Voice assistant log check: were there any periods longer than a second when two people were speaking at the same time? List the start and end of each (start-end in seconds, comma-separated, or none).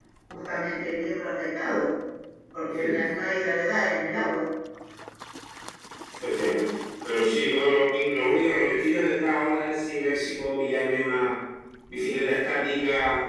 none